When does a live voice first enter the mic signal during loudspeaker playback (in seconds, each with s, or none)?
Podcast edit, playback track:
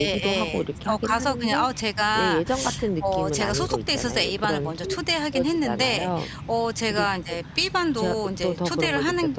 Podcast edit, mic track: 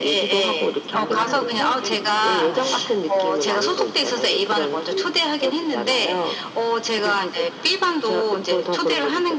0.9 s